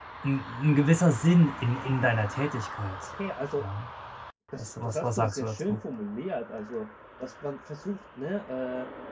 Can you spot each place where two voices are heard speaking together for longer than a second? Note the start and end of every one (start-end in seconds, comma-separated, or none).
4.6-5.8